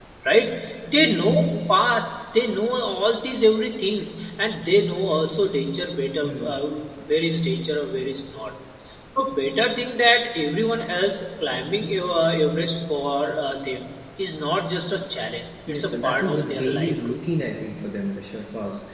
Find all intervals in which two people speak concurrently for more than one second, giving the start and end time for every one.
15.7-17.2

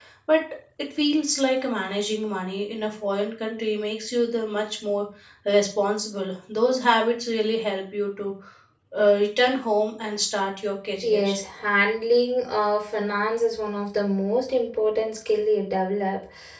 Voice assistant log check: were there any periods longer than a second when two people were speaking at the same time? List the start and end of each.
none

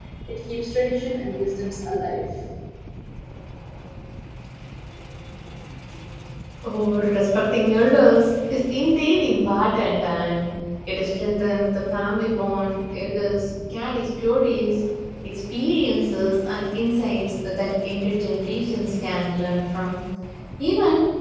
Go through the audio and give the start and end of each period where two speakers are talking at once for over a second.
none

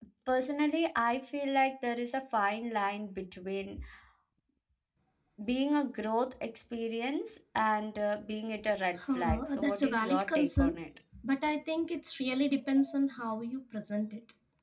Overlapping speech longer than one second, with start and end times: 9.2-10.7

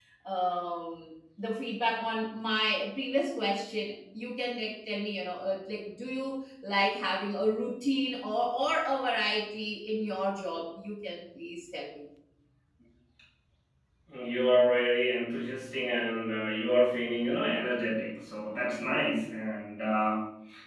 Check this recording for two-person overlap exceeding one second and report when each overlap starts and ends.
none

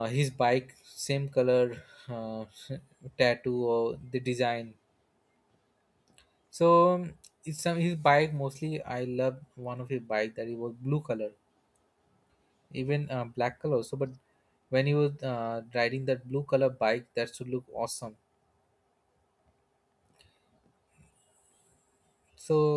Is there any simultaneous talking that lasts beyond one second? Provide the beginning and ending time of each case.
none

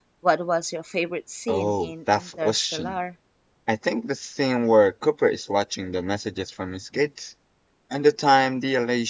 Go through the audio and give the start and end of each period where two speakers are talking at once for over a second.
1.5-3.0

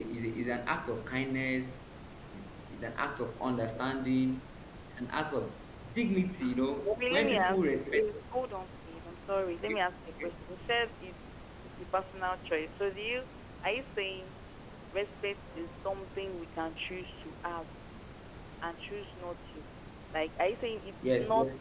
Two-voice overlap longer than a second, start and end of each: 6.7-8.0

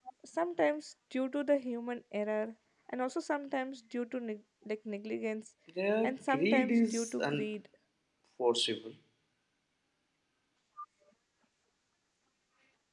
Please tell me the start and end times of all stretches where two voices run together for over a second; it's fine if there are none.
6.0-7.5

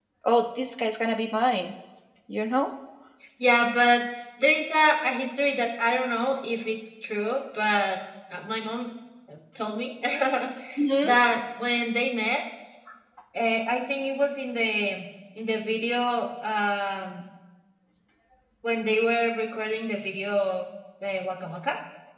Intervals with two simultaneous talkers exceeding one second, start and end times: none

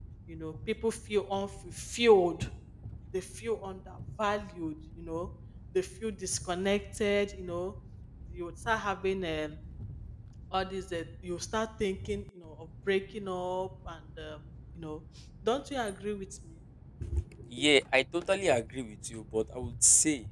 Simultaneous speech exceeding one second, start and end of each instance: none

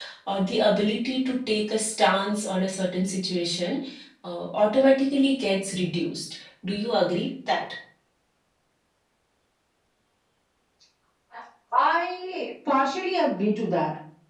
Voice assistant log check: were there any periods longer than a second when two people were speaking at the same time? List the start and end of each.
none

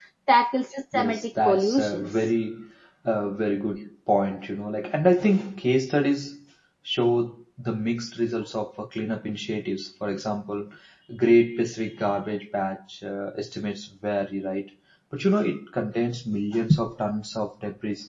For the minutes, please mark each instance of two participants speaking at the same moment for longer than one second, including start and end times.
0.9-2.3

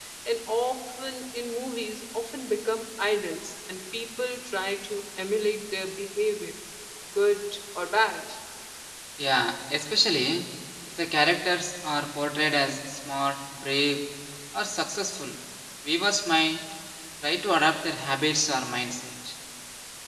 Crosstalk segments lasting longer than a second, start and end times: none

